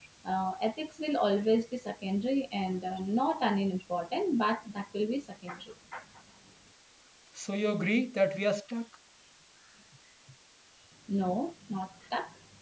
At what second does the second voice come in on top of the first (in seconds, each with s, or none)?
none